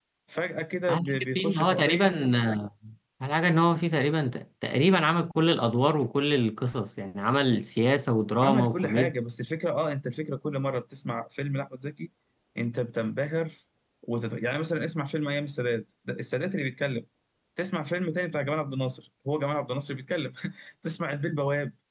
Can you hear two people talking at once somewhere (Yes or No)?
Yes